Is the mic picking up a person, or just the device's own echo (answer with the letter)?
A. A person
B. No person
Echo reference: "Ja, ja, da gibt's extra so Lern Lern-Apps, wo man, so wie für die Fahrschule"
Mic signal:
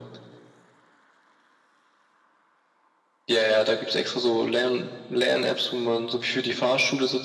B